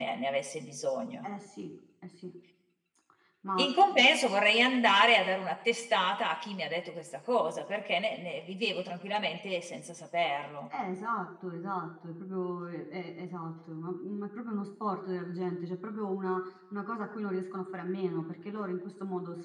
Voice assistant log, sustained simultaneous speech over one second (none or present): none